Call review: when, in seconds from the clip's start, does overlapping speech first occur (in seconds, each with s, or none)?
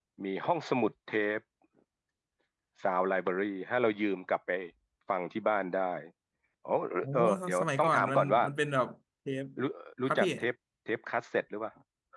7.1 s